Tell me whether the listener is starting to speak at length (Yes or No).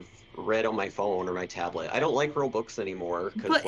Yes